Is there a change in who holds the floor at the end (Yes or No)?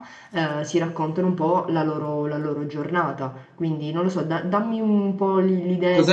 Yes